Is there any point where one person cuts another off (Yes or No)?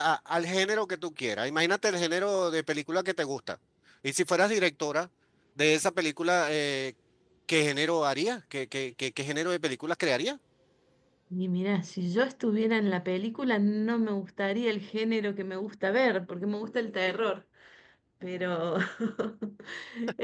No